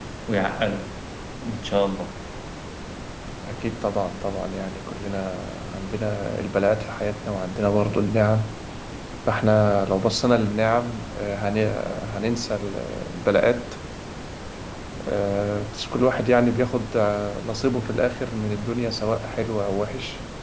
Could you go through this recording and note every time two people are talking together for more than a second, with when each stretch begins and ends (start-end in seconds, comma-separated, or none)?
none